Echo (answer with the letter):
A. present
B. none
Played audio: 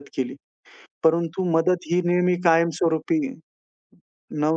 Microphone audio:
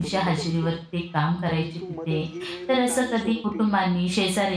A